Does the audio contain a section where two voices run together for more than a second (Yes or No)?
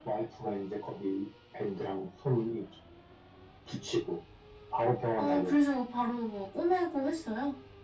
No